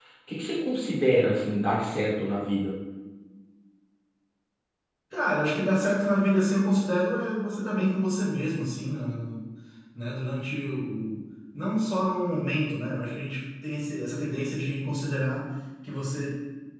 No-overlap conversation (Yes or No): Yes